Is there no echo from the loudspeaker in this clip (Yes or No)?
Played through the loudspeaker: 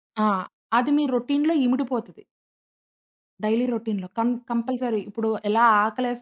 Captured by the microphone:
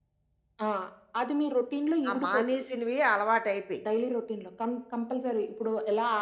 No